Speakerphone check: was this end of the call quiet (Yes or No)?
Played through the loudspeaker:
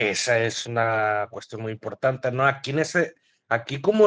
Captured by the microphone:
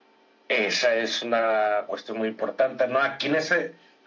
Yes